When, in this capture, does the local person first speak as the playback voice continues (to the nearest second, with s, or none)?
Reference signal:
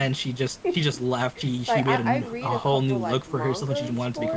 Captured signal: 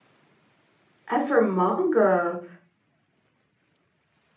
1 s